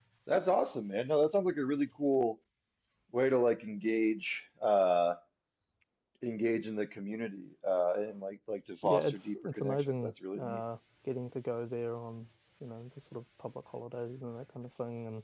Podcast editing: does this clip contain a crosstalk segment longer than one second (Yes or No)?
Yes